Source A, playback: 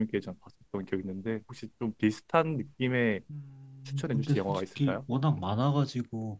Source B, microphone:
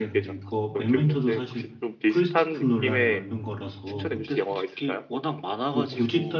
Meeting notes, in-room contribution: present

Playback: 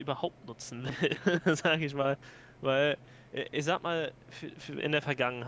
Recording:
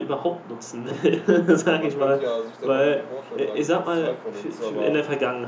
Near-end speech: present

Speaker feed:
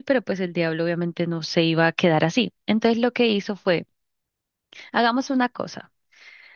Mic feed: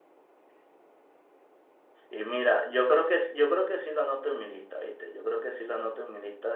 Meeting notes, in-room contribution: present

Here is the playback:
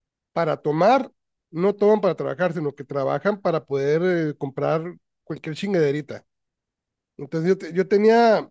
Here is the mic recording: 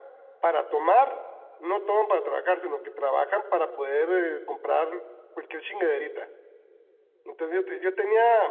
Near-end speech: none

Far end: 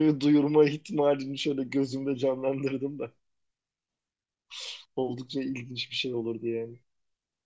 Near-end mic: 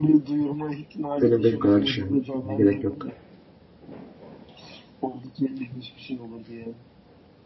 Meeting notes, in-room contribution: present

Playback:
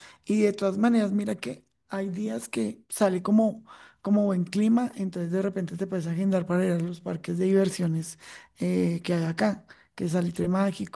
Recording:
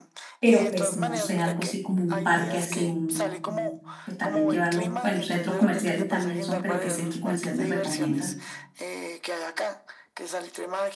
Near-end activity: present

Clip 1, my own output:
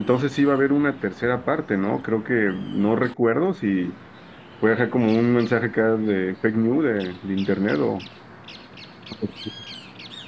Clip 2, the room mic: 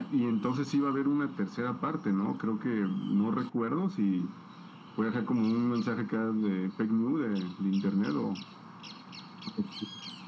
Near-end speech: none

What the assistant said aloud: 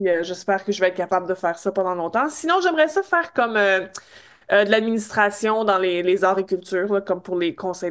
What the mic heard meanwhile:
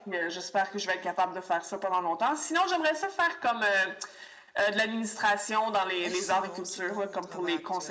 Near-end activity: present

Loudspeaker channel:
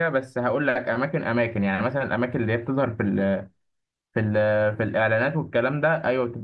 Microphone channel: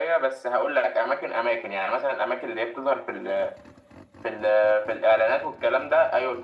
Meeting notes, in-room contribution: none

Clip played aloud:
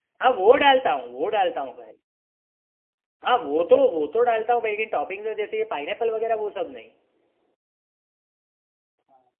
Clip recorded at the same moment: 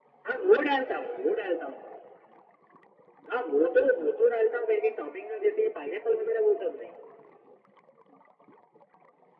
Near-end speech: none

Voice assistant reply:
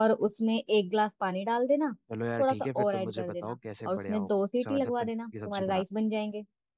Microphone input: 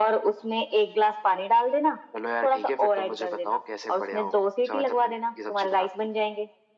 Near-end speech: none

